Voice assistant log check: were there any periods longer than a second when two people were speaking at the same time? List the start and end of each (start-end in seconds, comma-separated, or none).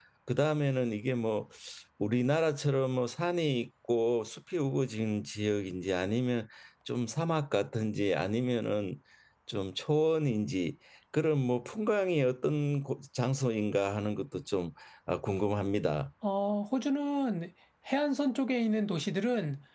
none